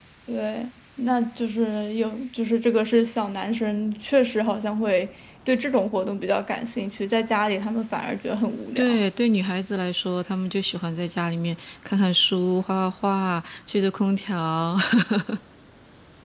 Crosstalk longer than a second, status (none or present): none